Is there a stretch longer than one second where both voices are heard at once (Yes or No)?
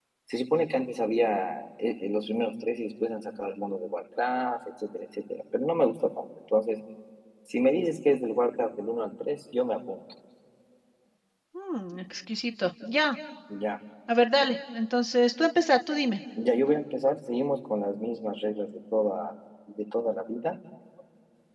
No